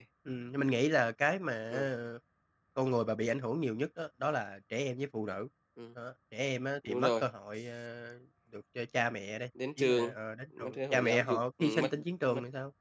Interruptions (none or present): present